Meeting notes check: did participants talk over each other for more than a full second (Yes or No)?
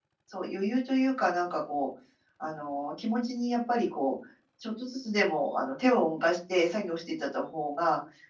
No